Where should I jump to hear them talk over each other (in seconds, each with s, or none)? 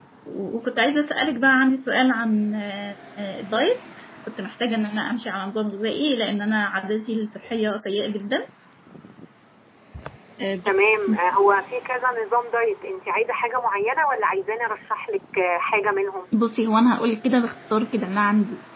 none